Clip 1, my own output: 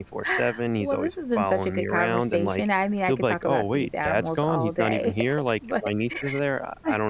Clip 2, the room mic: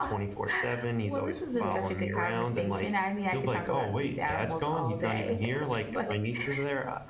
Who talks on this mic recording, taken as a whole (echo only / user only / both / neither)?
both